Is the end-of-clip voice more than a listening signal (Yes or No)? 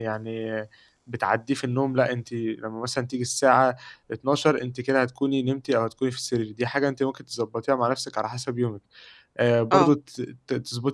No